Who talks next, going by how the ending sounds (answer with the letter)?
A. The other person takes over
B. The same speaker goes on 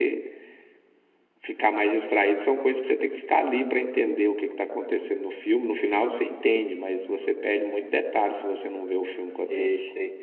A